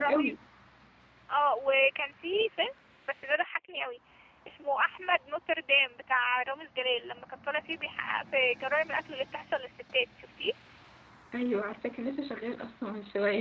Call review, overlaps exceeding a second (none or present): none